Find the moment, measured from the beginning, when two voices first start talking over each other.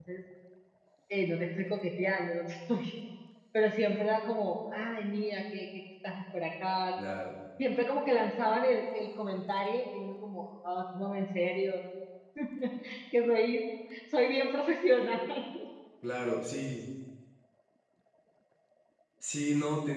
none

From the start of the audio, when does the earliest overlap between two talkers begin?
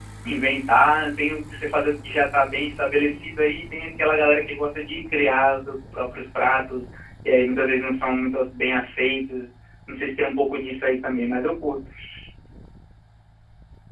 none

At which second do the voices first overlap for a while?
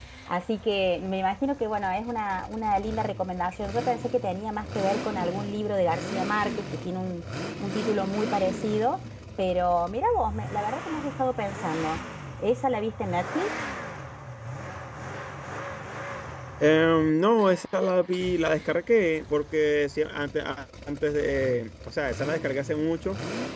none

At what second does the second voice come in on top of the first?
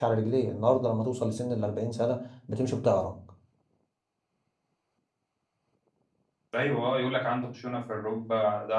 none

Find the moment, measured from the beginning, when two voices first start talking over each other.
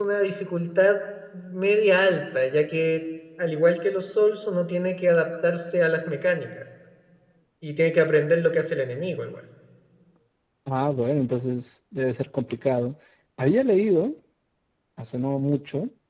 none

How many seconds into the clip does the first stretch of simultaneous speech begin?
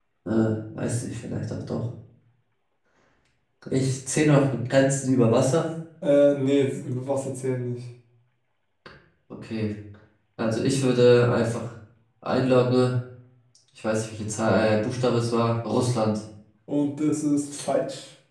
none

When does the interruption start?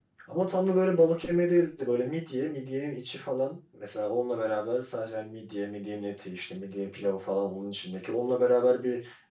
none

